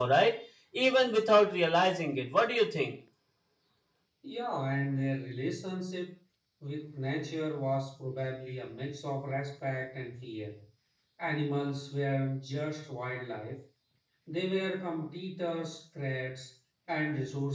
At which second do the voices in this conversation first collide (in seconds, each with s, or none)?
none